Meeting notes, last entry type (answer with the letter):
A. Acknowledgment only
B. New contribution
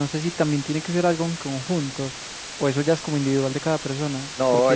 B